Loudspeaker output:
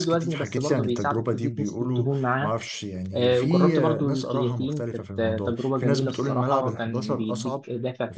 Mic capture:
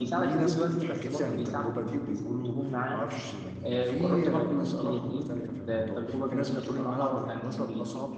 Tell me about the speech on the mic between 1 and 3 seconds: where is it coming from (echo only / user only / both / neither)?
echo only